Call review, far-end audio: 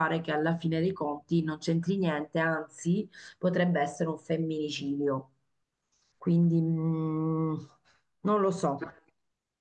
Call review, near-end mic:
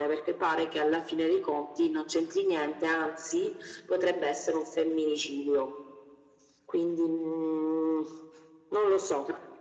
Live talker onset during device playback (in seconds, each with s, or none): none